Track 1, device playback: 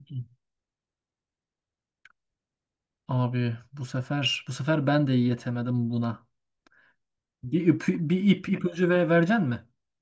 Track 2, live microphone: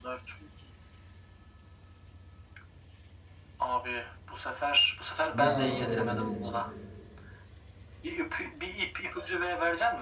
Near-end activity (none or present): present